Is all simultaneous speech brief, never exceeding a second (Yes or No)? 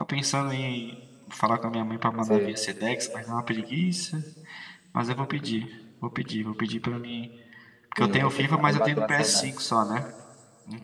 No